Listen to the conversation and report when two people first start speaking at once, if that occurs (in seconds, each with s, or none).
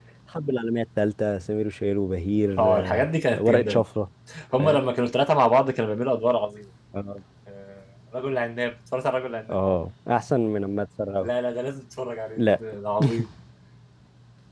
2.6 s